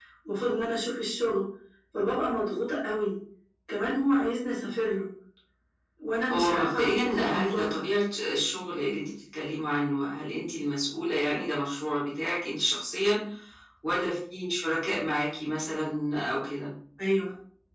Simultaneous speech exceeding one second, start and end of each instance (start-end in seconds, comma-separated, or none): 6.3-7.8